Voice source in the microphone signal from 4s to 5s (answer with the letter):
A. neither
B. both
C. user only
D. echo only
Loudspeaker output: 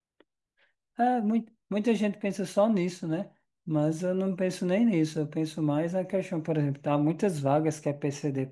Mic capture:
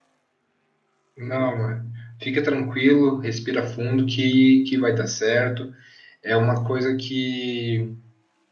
C